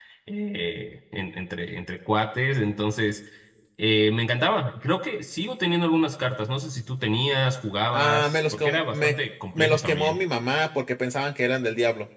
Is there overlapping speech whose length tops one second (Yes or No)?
Yes